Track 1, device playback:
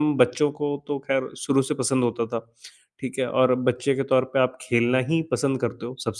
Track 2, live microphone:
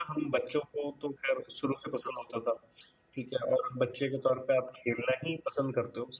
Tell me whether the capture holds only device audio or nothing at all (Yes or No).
Yes